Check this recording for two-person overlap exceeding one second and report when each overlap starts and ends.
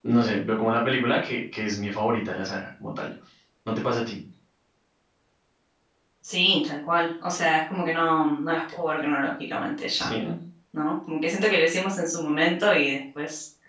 none

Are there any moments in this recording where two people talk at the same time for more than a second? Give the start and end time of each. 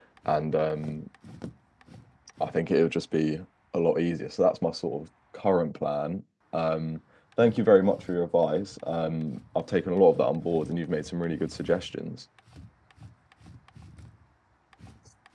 none

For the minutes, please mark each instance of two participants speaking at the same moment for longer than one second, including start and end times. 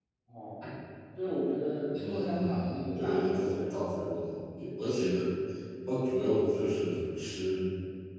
2.1-3.6

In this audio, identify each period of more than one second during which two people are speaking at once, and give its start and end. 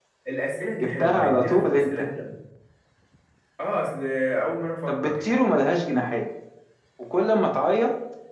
0.8-2.0

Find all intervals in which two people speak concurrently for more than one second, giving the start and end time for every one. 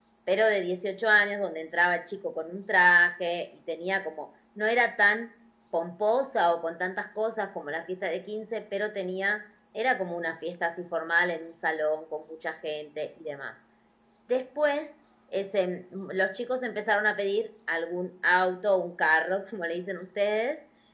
none

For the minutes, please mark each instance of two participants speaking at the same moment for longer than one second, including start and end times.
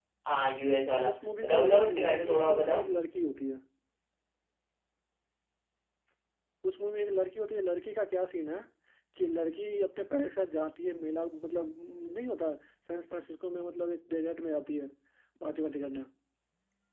1.4-2.8

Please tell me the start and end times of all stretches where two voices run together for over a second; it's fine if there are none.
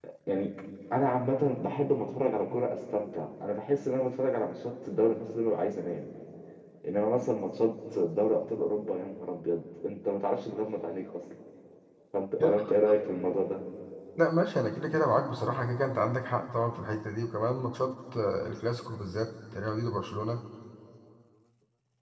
none

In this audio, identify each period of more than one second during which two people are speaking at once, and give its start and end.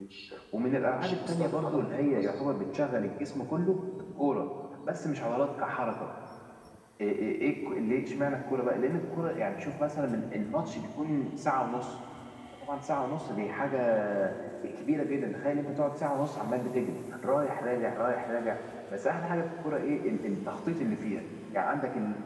1.0-2.3

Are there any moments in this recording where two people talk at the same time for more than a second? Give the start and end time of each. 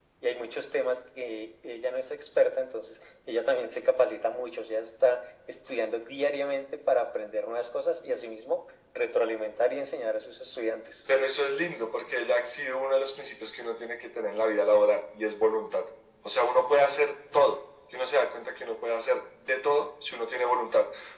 none

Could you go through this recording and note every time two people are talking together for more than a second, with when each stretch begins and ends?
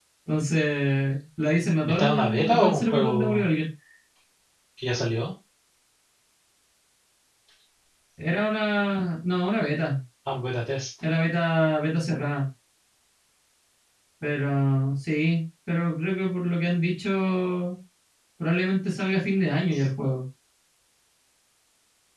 1.9-3.5

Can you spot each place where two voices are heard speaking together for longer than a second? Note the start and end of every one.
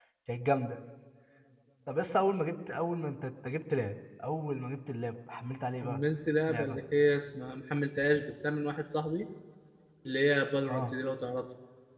none

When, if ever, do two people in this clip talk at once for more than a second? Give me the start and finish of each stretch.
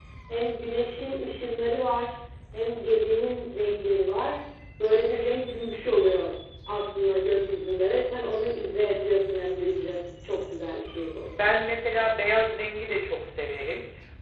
none

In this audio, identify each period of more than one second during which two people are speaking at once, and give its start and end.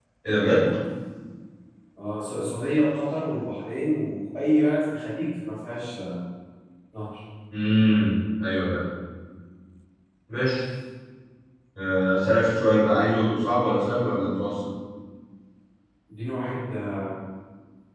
none

